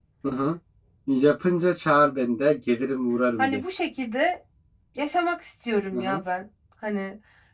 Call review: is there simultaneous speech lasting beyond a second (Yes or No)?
No